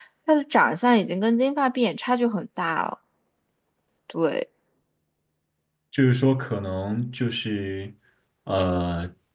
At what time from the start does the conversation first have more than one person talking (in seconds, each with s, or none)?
none